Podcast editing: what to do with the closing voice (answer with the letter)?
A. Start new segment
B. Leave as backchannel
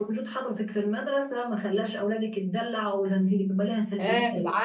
A